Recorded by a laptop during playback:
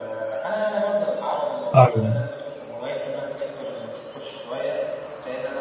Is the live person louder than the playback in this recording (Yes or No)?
Yes